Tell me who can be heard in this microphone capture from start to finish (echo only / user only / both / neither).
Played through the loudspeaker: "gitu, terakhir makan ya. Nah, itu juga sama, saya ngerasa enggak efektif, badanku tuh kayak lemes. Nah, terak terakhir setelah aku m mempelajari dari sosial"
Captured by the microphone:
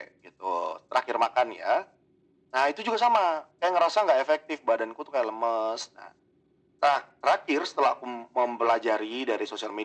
echo only